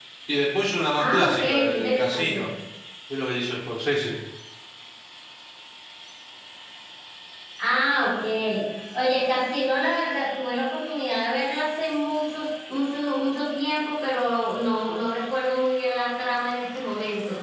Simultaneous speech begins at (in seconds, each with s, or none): 1.0 s